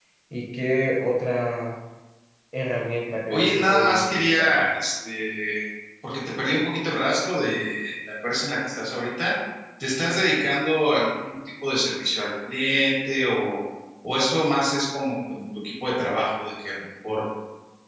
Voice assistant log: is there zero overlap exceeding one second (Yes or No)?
No